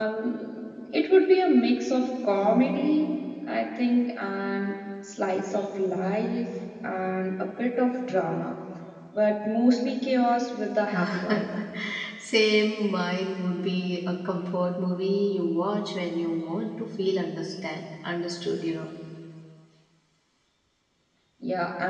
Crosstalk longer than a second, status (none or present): none